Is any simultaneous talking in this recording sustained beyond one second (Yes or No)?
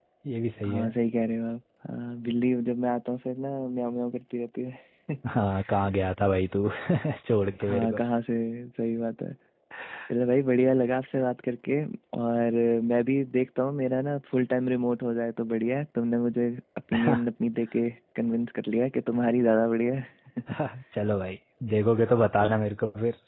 No